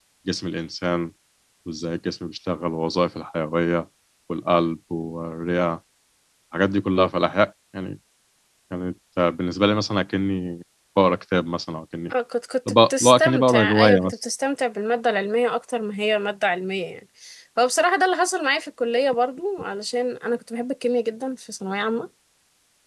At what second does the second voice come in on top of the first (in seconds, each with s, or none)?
12.9 s